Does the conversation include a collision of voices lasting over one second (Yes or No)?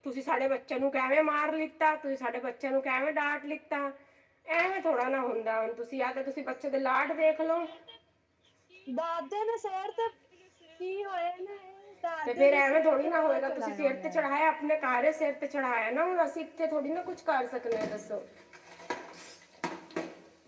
Yes